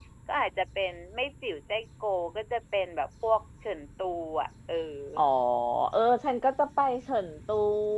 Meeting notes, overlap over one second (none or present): none